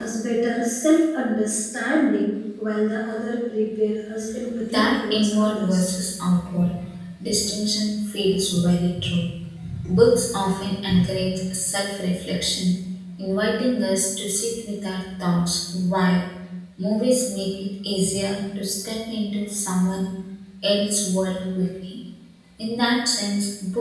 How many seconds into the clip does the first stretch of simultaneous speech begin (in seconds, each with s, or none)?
4.6 s